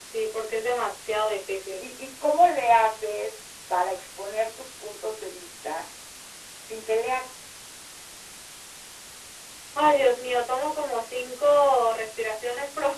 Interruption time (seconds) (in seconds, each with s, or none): none